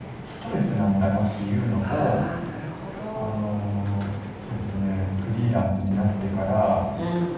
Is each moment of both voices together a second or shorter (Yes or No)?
Yes